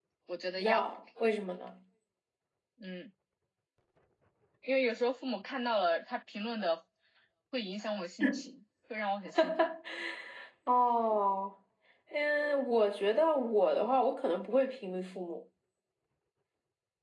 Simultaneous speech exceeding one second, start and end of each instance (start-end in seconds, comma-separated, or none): none